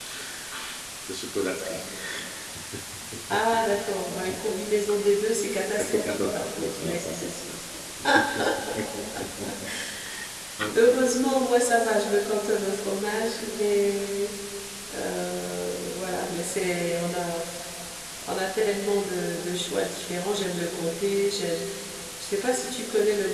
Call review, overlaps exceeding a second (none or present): present